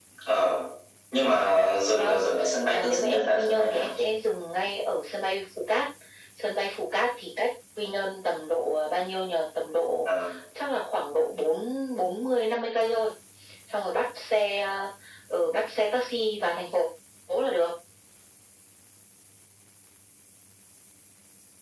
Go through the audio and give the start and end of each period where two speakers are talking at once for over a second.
2.7-4.1

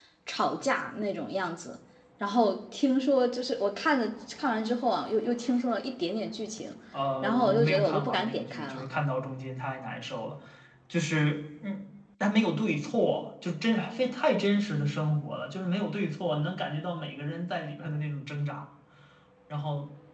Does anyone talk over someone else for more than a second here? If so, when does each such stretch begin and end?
7.2-8.9

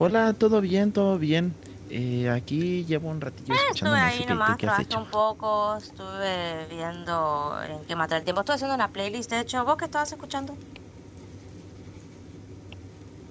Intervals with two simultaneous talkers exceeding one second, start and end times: 3.7-5.0

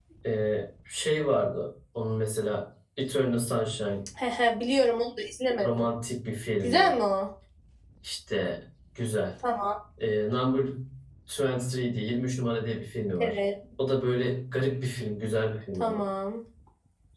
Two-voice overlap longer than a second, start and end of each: none

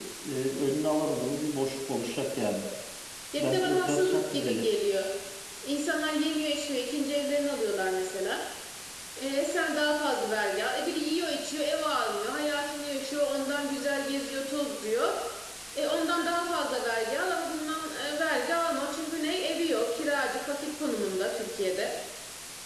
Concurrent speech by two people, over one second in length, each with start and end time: 3.4-4.7

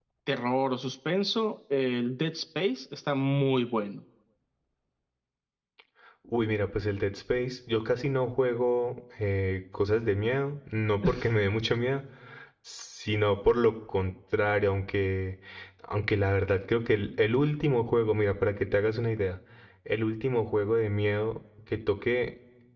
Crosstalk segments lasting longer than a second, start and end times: none

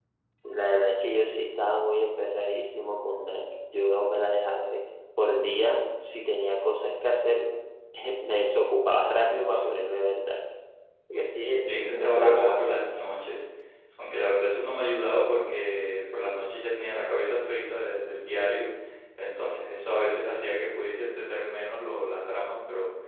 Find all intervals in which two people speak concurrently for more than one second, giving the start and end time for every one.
11.6-12.9

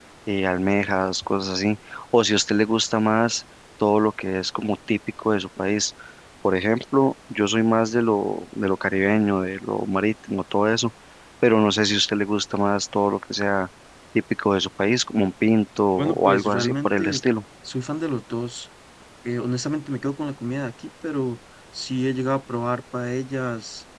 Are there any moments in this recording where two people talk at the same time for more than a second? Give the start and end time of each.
15.9-17.2

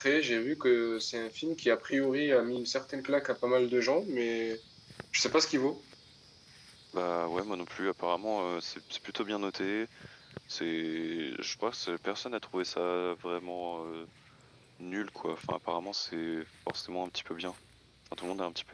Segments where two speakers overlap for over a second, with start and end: none

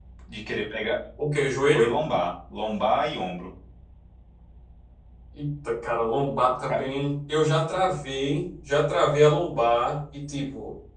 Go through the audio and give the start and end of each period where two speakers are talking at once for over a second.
none

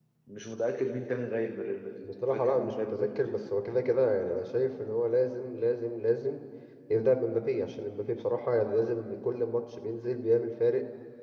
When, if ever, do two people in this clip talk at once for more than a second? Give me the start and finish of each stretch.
2.0-3.3

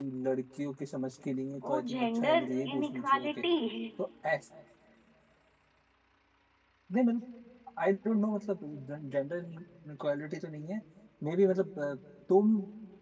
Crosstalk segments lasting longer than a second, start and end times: 1.7-3.3

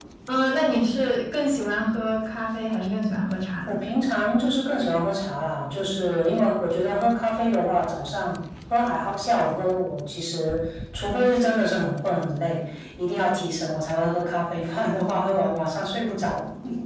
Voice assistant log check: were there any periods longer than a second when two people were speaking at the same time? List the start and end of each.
none

